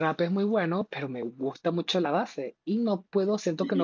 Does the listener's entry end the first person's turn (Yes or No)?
Yes